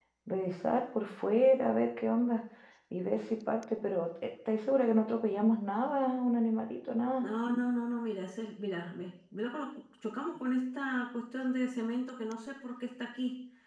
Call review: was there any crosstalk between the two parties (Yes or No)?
No